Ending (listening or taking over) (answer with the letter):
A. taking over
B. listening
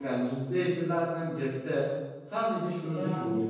B